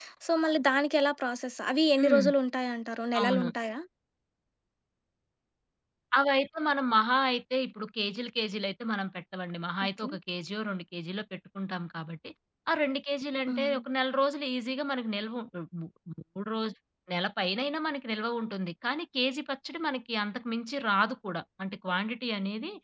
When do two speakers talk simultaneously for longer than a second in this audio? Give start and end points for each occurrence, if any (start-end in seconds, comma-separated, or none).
none